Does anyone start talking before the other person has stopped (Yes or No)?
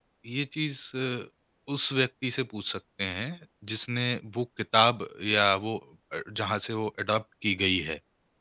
No